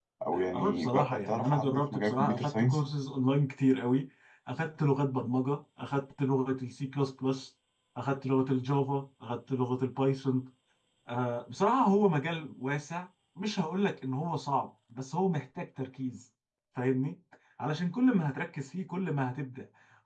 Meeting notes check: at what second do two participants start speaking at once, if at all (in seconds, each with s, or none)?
0.5 s